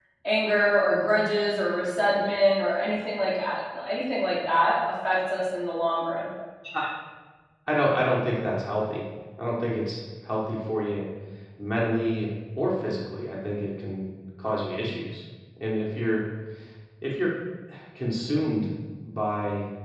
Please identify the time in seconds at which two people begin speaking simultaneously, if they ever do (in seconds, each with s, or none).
none